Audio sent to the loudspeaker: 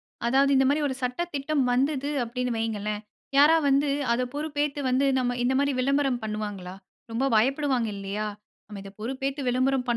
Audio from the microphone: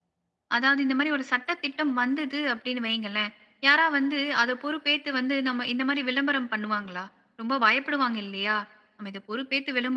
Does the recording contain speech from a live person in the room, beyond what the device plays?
No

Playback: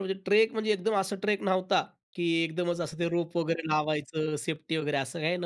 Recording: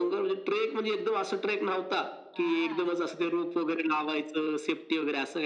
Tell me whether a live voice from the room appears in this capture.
Yes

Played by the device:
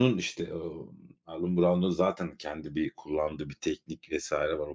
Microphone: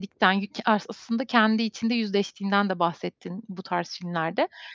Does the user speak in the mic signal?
Yes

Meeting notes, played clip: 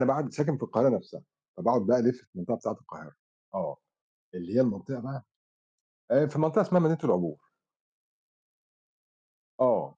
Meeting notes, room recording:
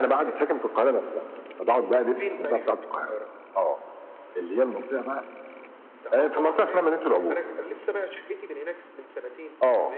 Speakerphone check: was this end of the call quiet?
No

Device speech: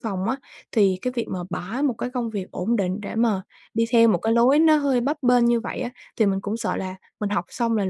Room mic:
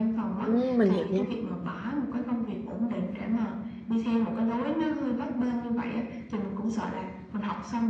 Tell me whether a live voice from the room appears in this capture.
Yes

